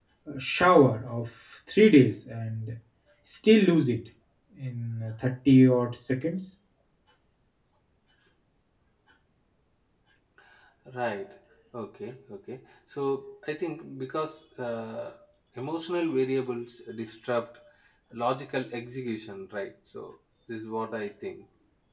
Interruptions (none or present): none